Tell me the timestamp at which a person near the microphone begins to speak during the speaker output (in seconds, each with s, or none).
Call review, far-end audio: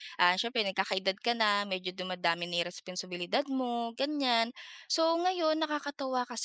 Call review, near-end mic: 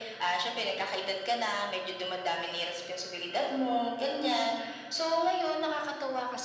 none